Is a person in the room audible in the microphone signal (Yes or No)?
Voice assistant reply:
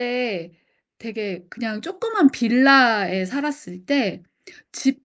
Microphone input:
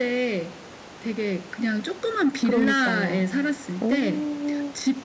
Yes